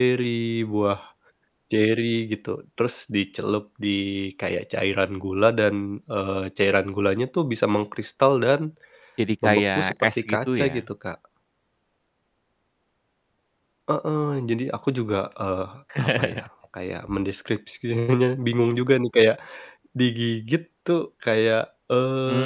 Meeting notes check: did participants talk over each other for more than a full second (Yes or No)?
Yes